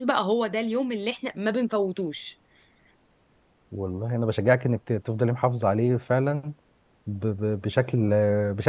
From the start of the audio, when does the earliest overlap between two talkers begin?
none

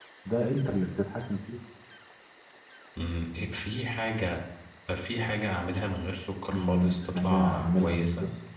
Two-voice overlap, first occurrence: 6.5 s

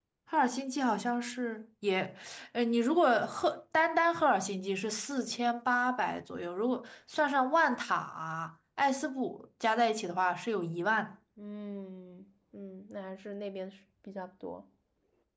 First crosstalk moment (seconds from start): none

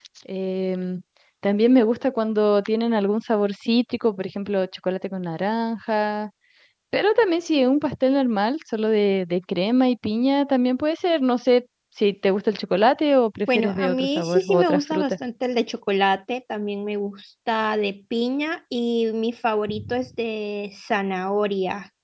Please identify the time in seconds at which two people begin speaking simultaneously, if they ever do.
13.5 s

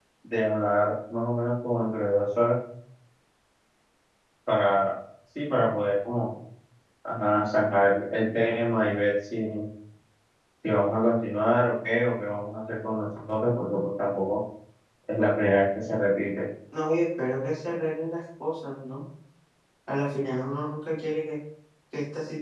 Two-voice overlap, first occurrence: none

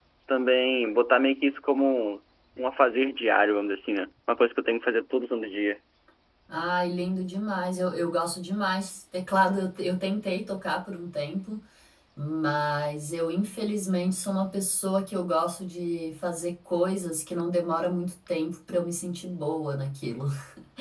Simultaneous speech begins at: none

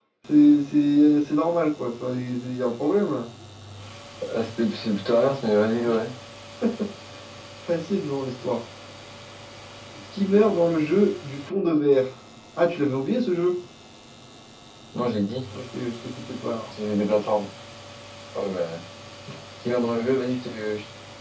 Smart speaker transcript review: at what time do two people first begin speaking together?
none

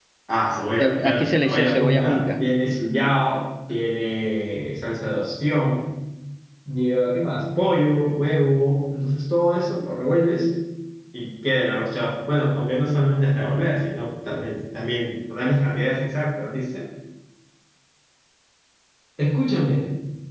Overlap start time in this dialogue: 0.8 s

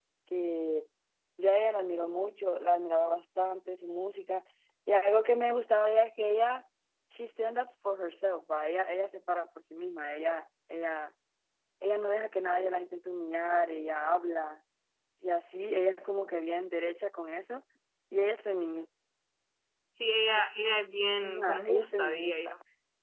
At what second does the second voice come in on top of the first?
21.2 s

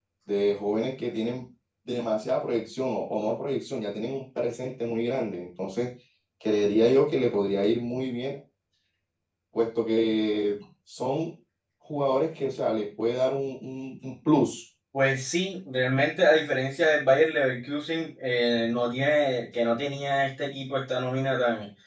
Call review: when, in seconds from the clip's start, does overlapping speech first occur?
none

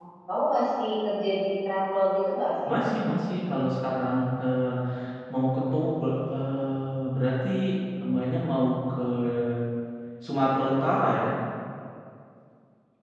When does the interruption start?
none

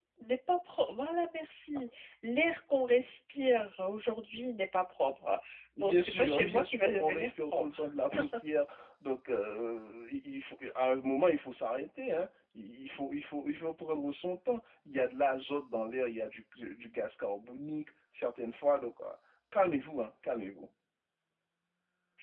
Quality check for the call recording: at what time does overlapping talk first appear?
5.8 s

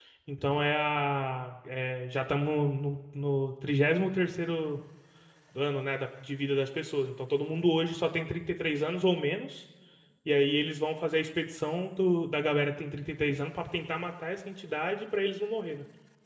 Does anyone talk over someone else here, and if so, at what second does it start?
none

